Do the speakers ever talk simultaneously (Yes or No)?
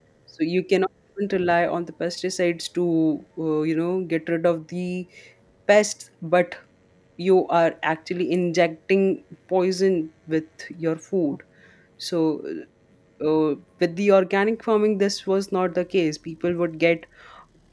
No